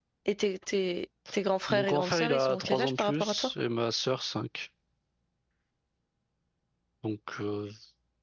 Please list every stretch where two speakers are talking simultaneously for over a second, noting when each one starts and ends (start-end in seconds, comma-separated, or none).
1.7-3.5